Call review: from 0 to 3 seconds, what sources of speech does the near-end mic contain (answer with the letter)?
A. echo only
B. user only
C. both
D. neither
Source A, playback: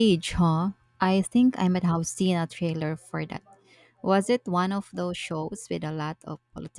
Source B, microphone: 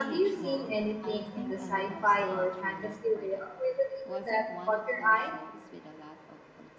C